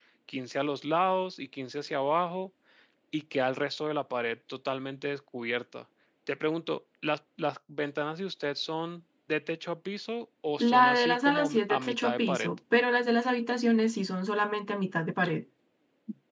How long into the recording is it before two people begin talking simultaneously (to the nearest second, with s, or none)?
11 s